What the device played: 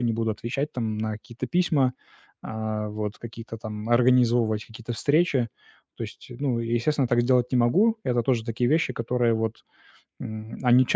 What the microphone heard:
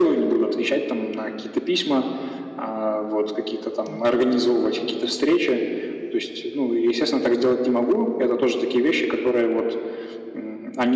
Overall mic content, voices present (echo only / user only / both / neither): both